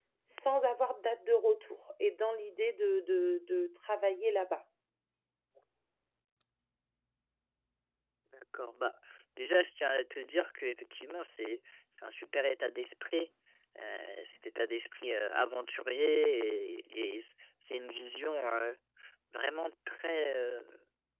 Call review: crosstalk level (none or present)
none